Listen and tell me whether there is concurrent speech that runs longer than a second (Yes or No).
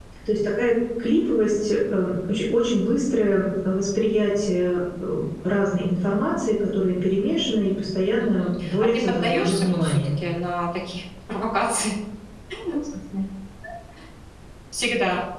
Yes